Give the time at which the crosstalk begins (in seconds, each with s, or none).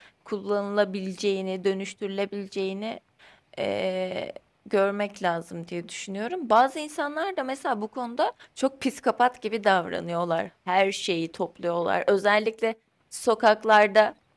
none